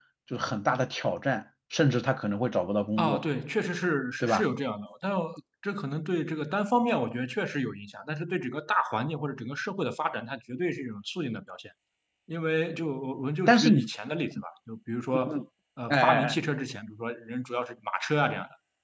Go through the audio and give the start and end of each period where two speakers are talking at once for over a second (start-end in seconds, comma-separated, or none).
none